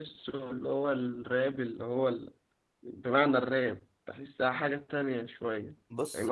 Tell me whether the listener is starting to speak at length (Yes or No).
Yes